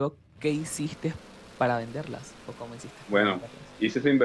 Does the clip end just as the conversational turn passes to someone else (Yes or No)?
Yes